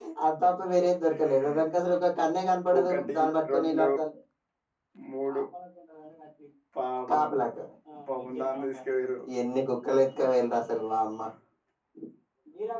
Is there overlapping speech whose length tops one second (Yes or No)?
No